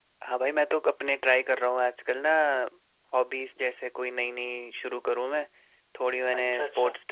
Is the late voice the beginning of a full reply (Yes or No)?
No